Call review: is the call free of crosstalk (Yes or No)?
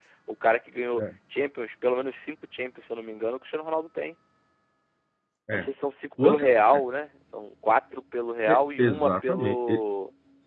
No